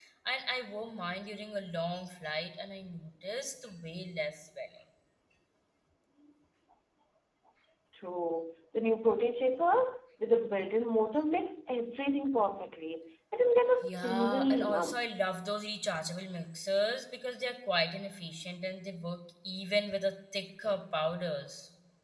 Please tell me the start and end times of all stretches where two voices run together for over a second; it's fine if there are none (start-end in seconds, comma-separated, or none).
13.8-15.1